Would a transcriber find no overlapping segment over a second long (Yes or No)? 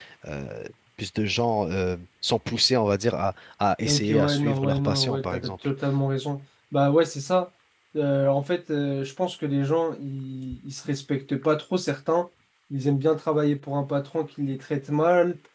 No